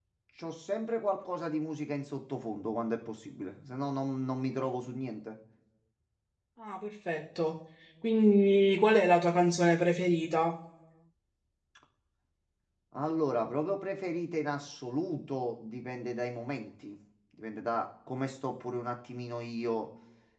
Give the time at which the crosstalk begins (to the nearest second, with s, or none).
none